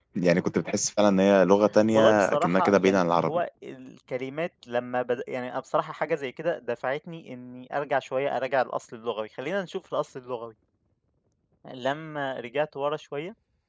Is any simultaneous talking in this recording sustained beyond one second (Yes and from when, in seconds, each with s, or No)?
Yes, from 1.9 s